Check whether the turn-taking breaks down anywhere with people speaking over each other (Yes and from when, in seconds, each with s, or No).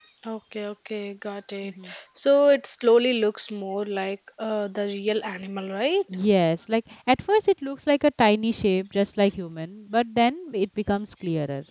No